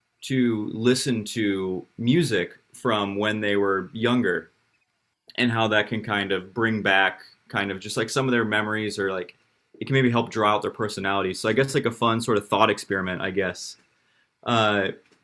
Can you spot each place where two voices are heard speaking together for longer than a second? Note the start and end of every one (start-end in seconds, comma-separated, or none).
none